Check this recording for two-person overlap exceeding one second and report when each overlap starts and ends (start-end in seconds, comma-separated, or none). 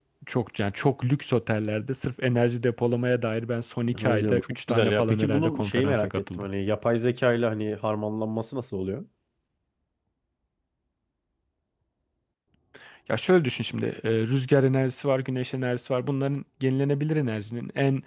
3.9-6.5